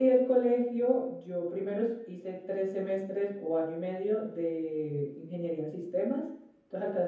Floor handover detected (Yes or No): No